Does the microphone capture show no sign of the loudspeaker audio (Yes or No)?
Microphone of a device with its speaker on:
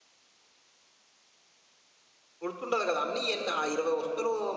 Yes